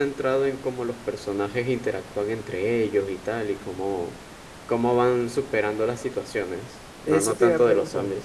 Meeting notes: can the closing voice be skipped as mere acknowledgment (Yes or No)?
No